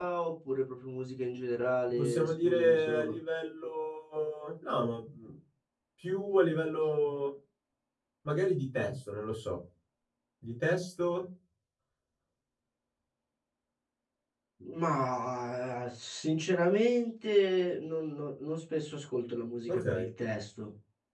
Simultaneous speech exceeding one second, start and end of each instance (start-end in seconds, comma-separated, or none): 1.9-3.1